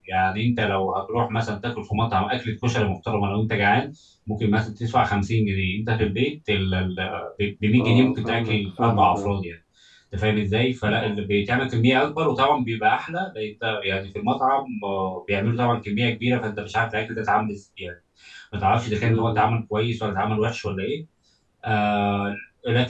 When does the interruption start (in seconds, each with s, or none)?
7.8 s